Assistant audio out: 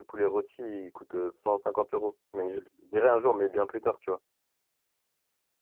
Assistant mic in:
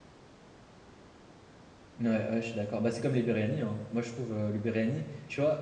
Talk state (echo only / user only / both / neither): user only